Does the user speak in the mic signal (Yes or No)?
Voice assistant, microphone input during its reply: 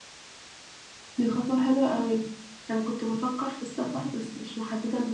Yes